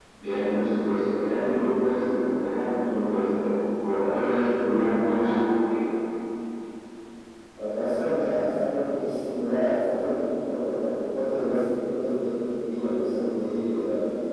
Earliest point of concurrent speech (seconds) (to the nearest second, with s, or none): none